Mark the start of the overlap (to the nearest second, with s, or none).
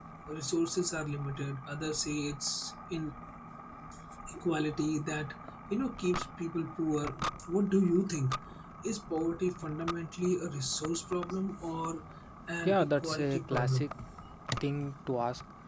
13 s